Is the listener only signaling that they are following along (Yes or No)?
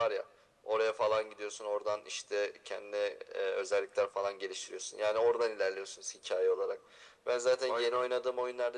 Yes